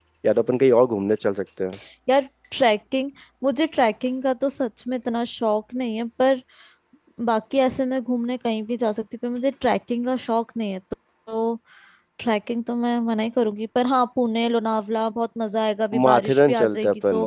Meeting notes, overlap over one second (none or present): present